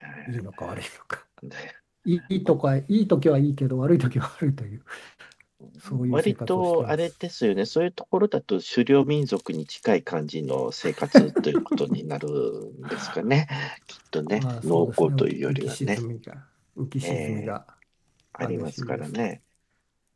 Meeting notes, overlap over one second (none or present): present